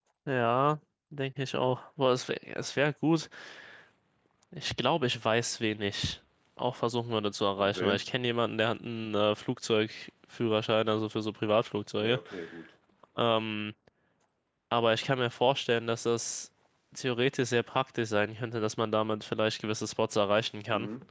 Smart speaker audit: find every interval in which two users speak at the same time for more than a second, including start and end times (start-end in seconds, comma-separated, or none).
none